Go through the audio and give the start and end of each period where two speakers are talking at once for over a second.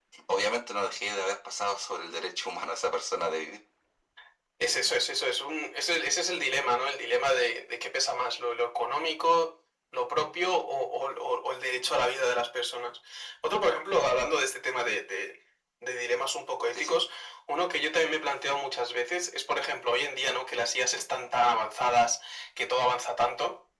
none

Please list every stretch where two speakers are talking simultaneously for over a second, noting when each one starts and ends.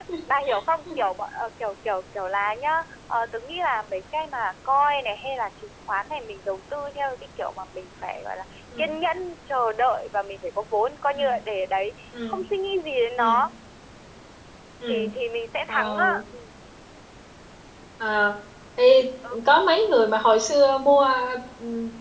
none

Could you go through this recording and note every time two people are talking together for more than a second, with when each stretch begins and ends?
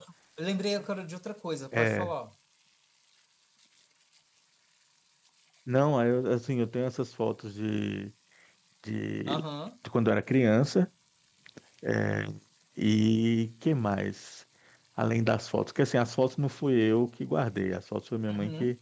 none

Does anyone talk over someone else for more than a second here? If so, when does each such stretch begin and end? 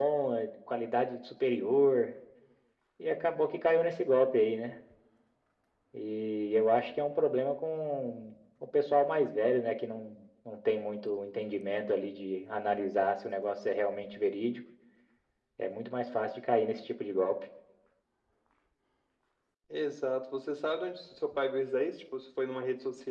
none

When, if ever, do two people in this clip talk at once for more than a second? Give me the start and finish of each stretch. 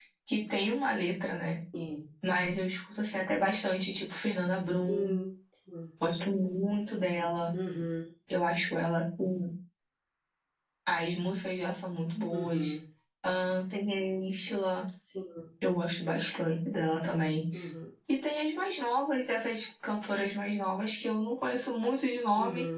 none

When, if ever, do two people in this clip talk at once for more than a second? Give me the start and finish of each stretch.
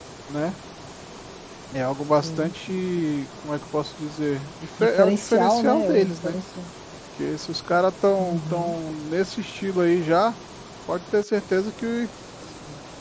4.8-6.4

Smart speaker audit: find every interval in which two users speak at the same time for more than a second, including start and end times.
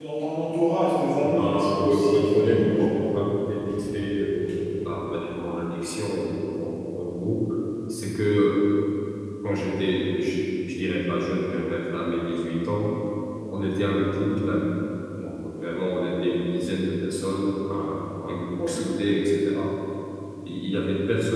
1.2-2.9

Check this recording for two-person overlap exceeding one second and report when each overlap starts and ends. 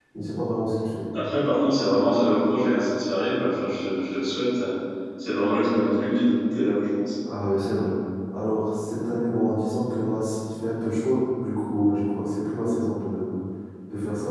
none

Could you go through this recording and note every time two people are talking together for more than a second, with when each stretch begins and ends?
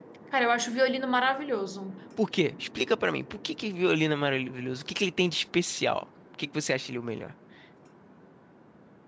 none

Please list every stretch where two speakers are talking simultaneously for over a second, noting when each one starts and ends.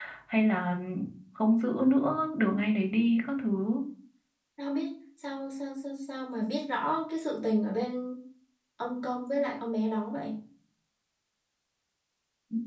none

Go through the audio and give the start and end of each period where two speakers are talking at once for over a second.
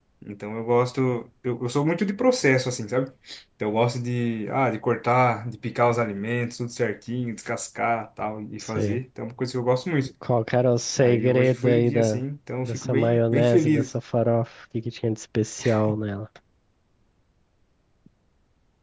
11.0-12.2, 12.6-13.9

